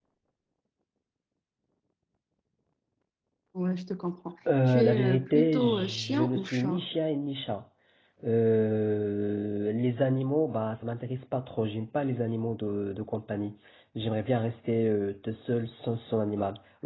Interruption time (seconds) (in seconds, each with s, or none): 4.5 s